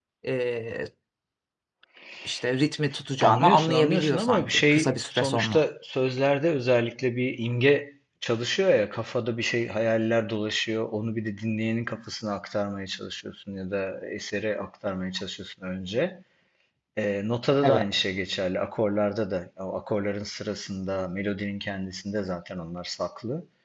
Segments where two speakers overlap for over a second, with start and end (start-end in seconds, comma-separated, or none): 3.2-5.6